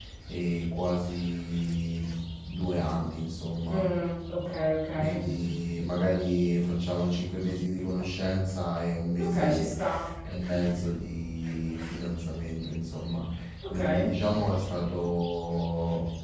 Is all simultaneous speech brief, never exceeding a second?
Yes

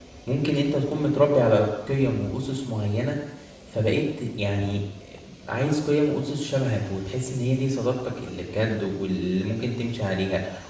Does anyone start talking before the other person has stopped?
No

